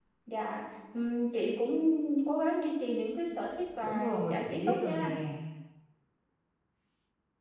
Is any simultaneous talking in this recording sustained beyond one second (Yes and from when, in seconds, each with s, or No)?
Yes, from 3.8 s